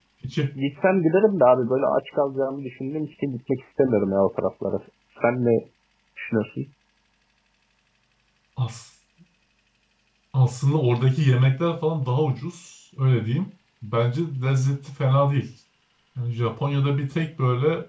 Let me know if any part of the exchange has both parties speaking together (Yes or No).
No